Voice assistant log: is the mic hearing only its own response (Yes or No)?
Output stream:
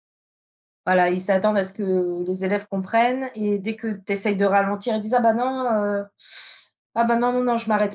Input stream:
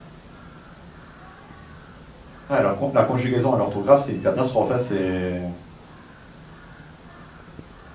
No